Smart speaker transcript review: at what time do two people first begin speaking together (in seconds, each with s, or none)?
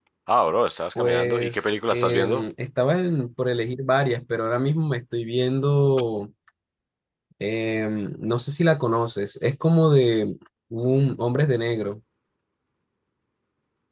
0.9 s